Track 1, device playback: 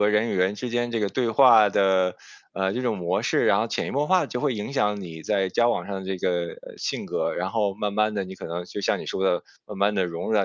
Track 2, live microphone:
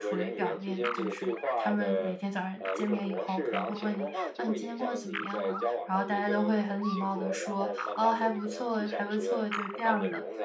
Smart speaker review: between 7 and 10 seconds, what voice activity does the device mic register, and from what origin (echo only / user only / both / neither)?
both